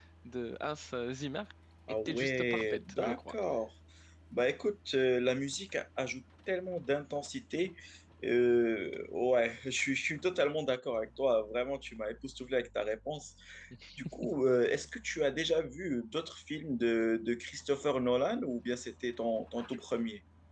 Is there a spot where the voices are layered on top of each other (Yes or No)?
Yes